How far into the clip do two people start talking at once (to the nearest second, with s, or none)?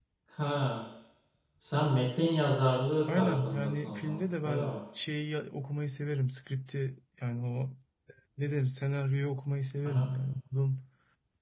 3 s